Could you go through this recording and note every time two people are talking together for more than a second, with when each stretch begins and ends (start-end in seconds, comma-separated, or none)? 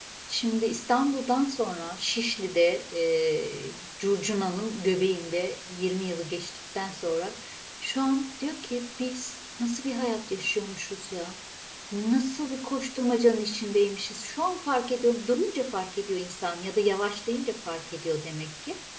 none